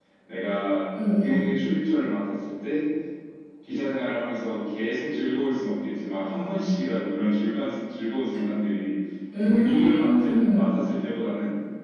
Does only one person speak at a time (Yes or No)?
No